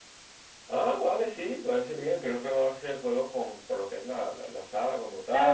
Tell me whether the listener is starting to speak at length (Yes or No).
Yes